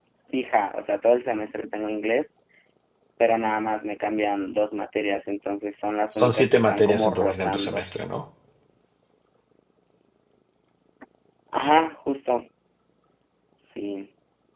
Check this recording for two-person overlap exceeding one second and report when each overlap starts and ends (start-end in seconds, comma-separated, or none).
6.1-7.8